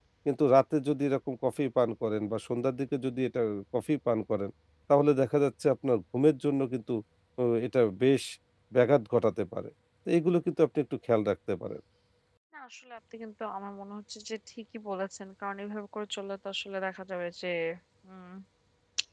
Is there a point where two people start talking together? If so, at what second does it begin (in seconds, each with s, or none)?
none